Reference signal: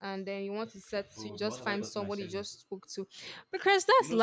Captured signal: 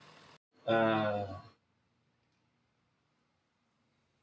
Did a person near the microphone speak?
Yes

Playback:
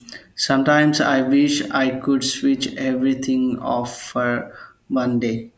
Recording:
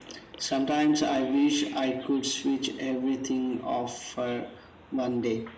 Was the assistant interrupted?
No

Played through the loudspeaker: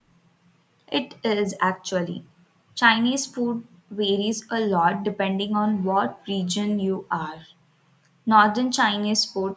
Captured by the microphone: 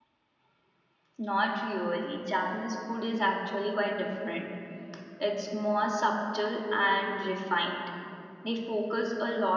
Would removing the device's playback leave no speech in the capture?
No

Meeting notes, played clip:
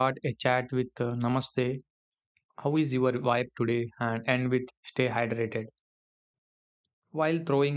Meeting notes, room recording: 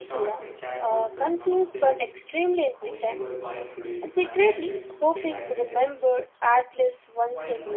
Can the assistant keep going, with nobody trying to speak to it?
No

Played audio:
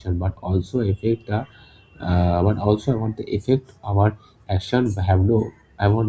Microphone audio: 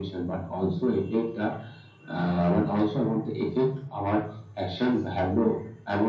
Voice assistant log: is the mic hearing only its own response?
Yes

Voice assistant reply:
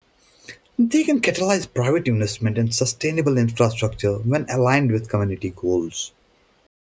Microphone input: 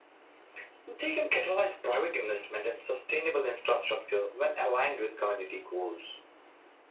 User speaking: No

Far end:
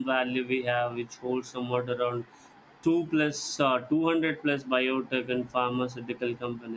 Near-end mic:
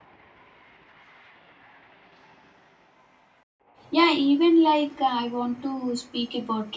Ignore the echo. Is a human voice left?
Yes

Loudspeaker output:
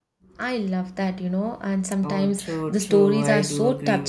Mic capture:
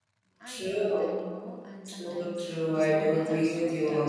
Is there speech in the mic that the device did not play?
Yes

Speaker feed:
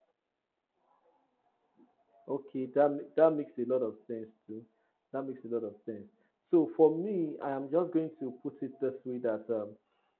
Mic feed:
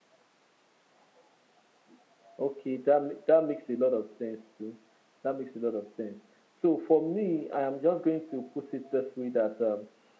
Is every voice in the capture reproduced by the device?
Yes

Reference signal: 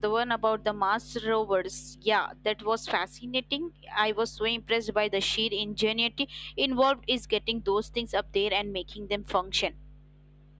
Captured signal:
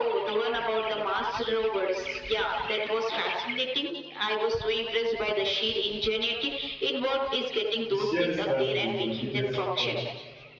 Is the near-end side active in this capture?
Yes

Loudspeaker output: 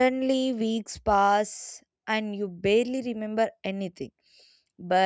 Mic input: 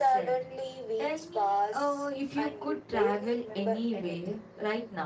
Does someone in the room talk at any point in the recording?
Yes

